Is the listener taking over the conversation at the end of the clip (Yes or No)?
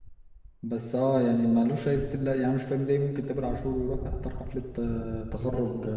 No